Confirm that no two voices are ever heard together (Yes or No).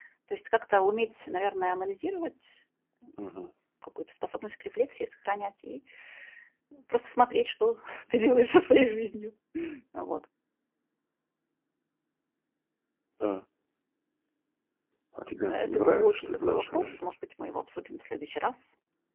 No